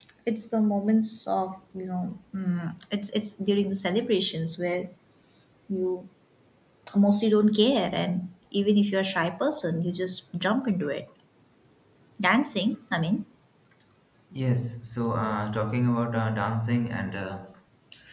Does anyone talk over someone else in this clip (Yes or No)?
No